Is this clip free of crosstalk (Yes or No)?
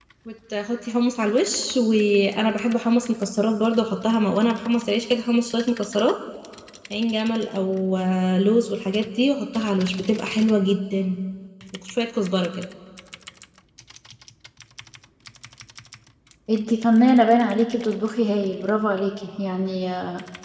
Yes